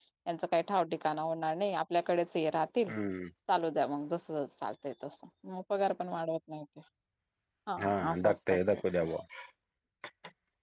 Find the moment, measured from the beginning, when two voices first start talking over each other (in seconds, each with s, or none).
7.8 s